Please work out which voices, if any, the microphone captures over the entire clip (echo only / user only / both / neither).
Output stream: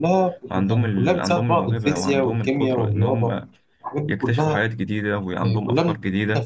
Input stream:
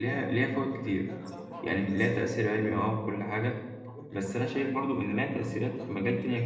both